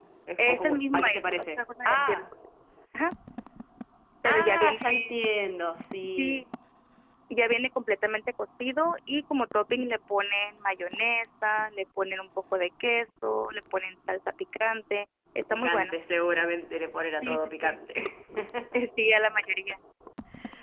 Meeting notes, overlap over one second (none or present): present